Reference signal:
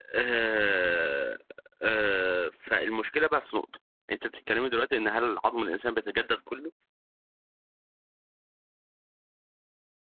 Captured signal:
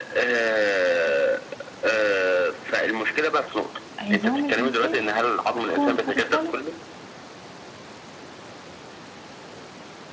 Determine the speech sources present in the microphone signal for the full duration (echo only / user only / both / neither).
both